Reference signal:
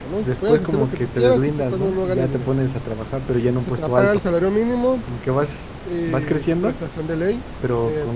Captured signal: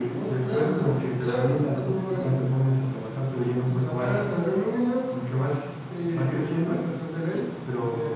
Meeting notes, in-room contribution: none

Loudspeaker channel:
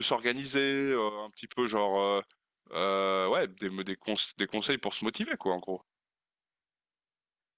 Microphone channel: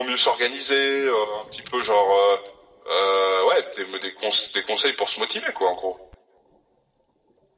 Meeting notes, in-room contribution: none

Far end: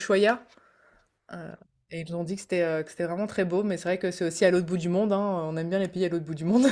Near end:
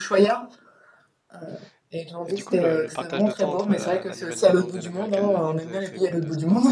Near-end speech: present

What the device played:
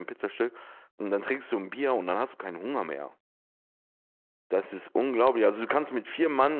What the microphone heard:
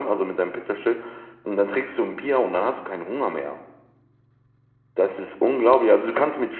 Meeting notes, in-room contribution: none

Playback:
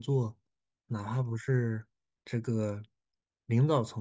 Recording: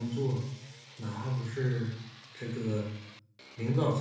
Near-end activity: none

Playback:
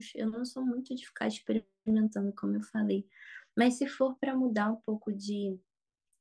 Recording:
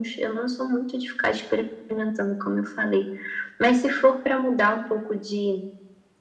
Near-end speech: none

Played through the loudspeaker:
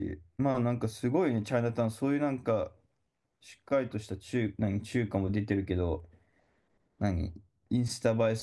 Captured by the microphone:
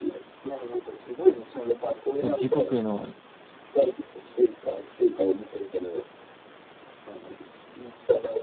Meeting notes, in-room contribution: present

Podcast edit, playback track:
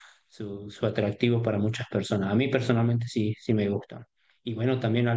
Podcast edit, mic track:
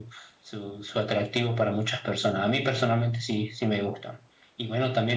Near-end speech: none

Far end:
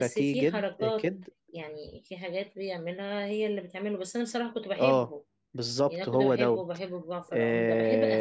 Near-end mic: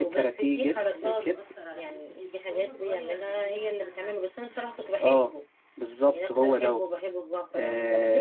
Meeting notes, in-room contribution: present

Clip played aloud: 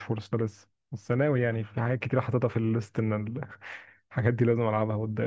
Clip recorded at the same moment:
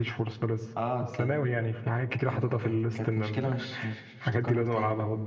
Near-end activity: present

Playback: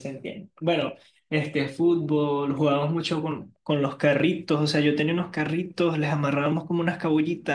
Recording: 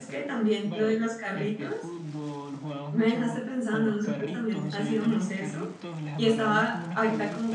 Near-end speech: present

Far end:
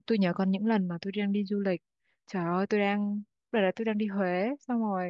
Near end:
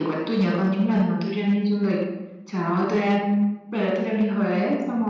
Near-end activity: none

